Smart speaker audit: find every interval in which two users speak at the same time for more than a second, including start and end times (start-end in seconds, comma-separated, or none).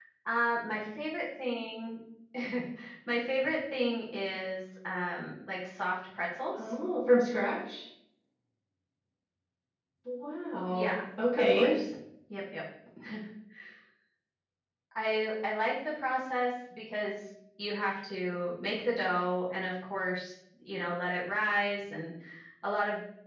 none